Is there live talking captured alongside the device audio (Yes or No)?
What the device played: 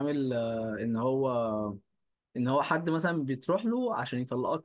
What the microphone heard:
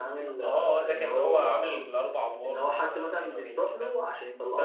Yes